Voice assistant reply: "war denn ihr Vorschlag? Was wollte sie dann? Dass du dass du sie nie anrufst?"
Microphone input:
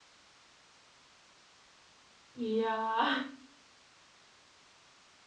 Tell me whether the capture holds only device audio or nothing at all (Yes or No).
No